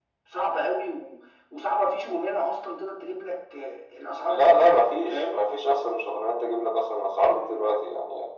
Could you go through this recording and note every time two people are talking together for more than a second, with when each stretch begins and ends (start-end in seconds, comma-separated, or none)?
none